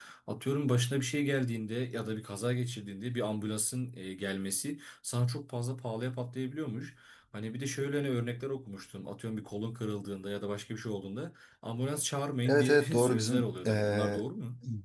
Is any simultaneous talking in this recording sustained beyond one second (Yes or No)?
Yes